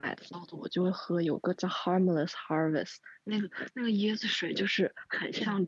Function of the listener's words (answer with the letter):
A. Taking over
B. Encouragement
B